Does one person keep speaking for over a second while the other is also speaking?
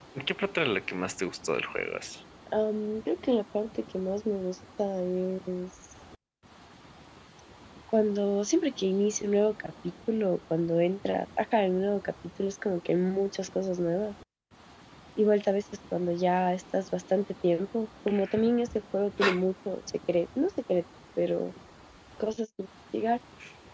No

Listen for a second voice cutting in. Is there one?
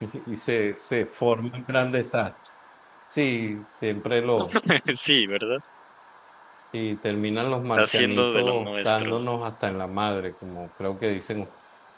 Yes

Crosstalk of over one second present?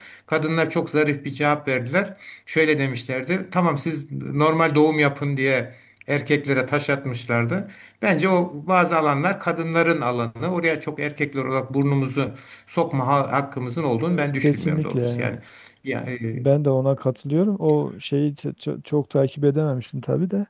Yes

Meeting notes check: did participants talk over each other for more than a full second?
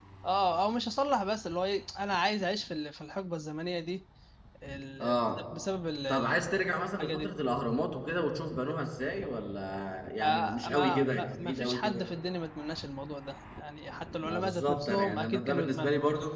Yes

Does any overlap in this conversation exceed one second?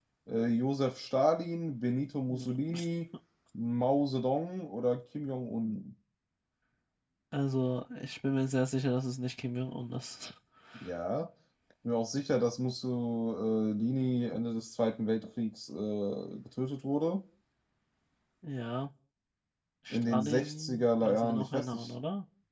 Yes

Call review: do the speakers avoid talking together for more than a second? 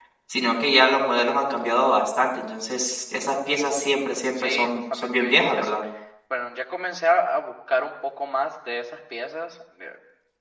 No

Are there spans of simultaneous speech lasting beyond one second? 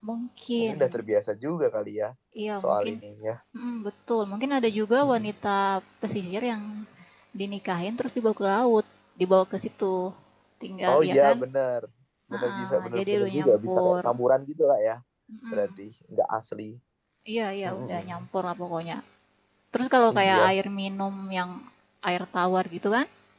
Yes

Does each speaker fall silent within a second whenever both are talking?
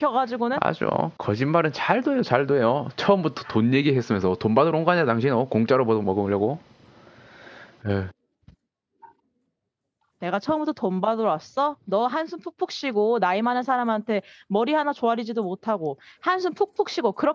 Yes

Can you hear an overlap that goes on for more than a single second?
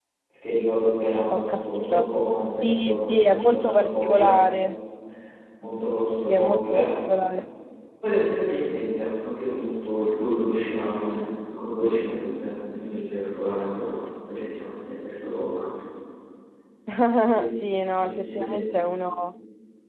Yes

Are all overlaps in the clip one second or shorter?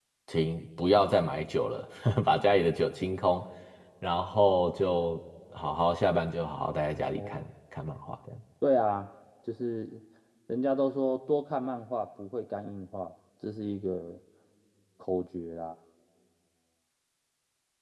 Yes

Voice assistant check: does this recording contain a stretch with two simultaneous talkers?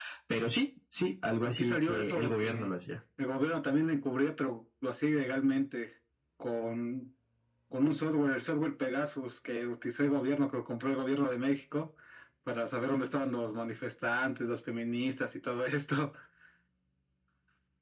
Yes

